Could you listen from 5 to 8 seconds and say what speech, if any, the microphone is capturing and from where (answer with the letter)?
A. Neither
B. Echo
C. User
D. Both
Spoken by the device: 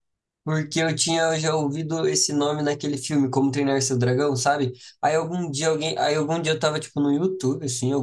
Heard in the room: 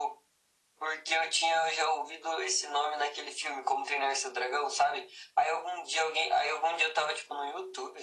B